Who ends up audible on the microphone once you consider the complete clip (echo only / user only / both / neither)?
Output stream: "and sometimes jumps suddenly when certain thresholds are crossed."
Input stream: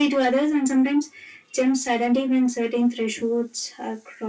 echo only